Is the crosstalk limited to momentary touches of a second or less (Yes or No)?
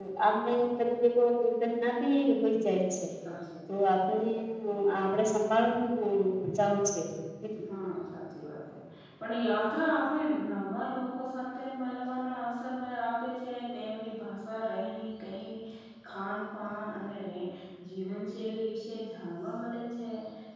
Yes